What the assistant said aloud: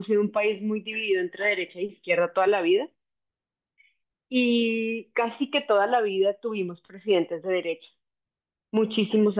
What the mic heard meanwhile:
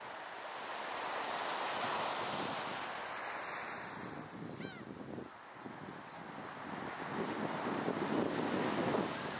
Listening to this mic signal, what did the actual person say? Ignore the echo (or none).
none